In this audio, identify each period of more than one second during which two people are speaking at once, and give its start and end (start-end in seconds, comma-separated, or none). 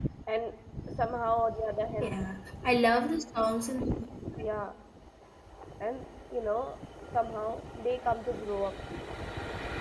none